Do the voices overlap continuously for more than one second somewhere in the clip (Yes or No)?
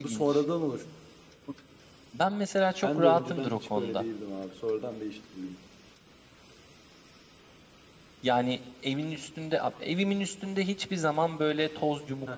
Yes